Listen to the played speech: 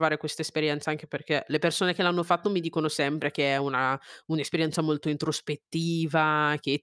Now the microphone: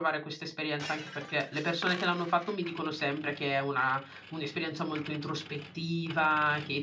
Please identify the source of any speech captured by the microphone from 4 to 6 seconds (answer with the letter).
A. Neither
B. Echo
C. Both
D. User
B